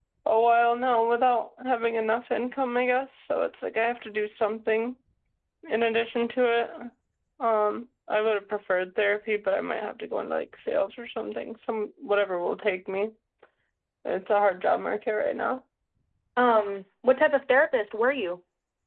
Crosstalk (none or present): none